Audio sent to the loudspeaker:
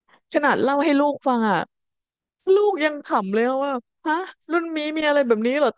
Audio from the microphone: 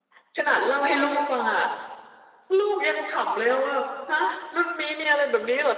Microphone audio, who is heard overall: echo only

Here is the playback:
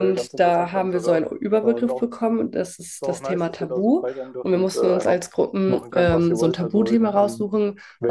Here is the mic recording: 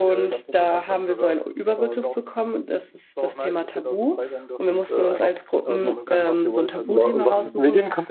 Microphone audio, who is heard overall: both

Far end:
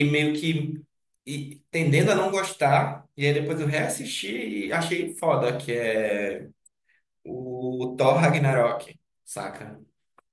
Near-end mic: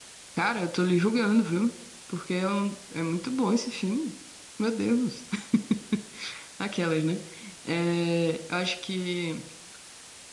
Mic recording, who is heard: user only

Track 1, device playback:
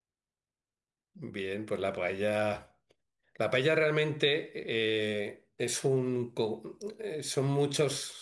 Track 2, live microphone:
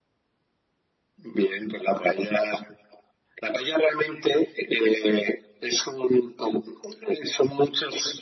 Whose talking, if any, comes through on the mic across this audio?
echo only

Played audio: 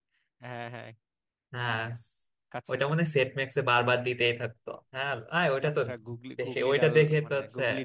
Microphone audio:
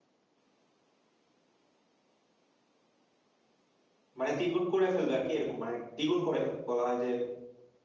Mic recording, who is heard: user only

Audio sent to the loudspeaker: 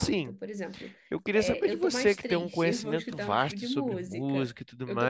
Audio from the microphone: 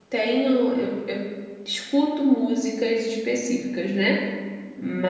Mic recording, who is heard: user only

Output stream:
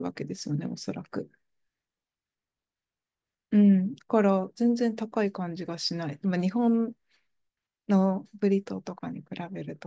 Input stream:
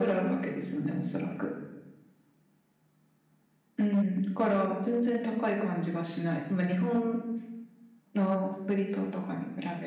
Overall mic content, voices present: echo only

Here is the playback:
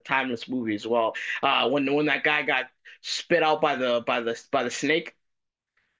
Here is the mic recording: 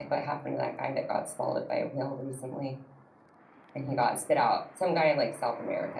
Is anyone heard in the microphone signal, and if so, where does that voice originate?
user only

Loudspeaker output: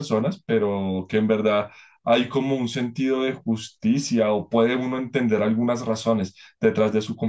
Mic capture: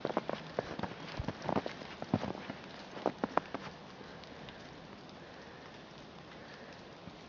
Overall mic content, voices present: neither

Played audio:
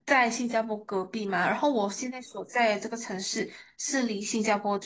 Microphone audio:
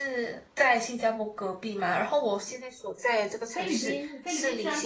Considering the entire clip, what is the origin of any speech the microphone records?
both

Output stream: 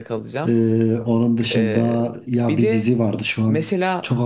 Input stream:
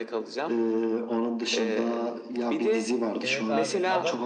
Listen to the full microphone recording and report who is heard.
both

